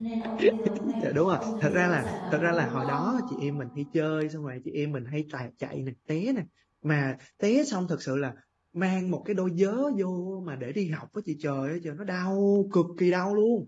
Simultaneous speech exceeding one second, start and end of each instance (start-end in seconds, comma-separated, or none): 1.0-3.2